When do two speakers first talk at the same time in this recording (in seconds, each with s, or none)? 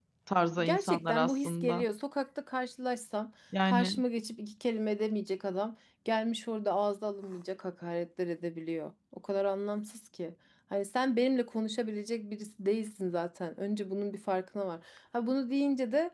0.6 s